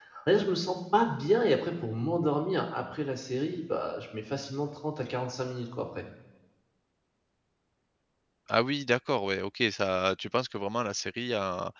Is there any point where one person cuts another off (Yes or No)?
No